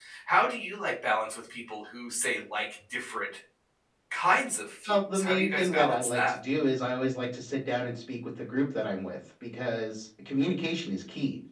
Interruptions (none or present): present